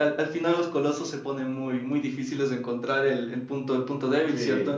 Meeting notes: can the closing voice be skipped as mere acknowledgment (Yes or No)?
No